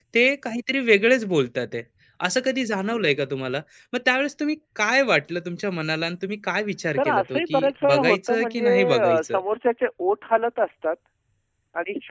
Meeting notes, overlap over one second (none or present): present